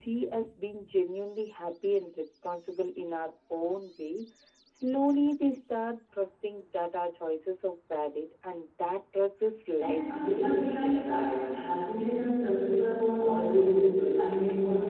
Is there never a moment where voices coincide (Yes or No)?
No